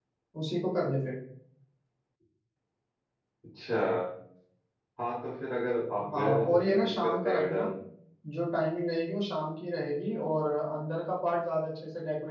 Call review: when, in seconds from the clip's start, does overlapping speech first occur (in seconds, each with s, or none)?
6.1 s